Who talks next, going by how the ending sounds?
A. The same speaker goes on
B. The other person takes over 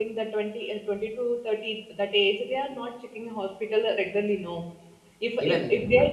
A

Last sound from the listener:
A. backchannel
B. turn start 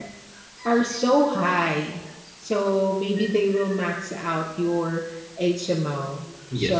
A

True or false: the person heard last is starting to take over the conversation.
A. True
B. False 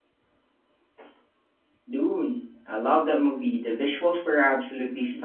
A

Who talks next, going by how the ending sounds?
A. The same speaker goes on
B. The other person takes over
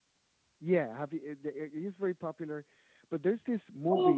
B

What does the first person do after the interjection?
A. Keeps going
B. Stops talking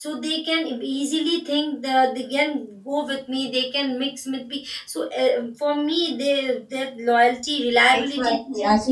B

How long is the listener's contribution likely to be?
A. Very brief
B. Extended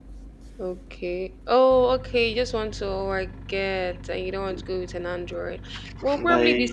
A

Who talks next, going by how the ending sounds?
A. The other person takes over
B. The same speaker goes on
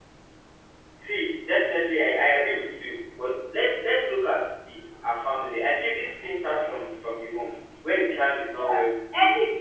A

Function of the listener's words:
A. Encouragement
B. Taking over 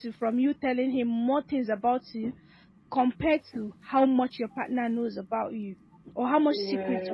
A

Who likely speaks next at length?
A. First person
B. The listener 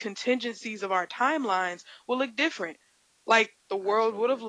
A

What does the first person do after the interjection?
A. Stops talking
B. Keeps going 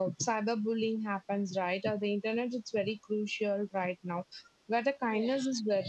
B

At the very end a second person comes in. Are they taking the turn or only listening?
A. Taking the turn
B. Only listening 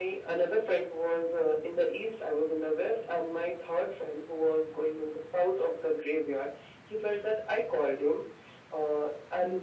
B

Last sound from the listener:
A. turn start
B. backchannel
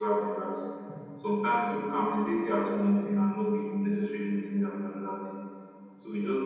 B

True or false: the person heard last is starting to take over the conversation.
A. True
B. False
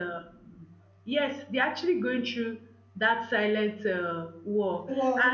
B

